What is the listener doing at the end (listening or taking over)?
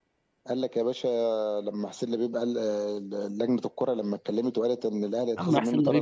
taking over